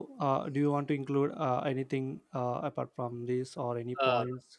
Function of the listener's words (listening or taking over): taking over